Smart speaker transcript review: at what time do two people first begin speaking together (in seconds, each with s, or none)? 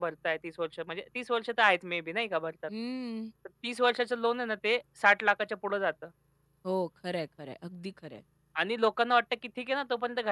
none